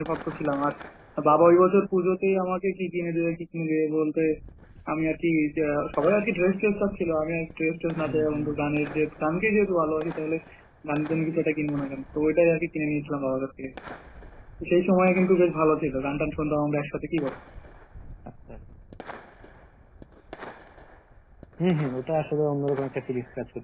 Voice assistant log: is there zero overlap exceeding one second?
Yes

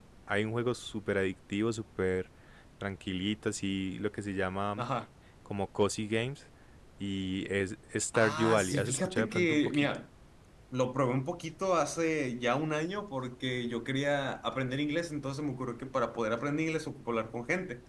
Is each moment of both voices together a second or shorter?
No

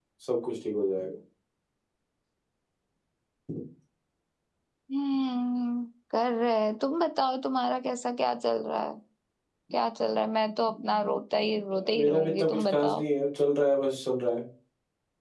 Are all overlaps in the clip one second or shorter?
No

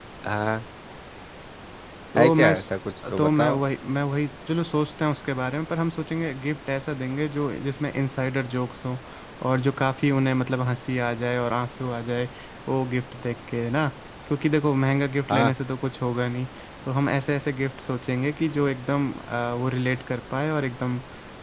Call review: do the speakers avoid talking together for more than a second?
Yes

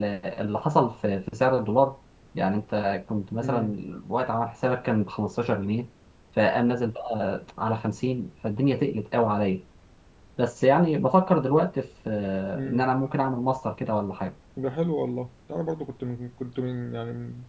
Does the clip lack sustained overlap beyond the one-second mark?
Yes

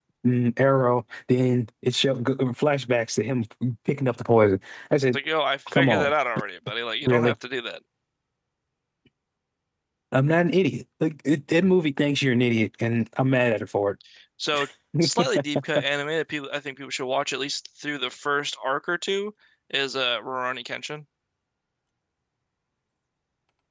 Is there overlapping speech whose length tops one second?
No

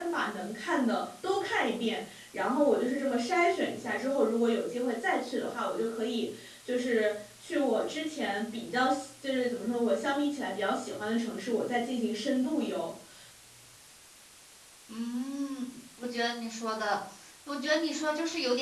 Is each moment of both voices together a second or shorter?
Yes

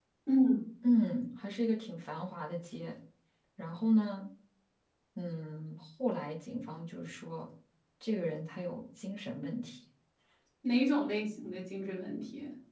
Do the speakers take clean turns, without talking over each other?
Yes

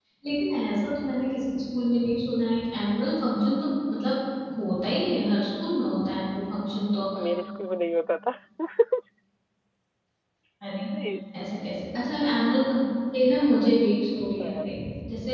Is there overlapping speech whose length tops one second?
No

